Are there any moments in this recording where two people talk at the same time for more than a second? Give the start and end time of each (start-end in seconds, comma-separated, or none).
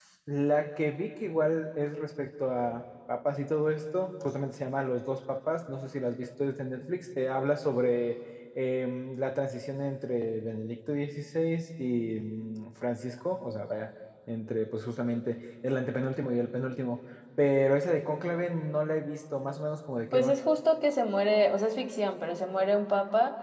none